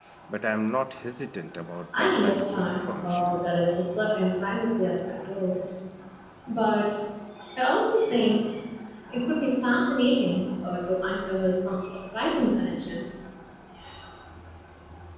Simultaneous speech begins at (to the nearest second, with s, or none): 2 s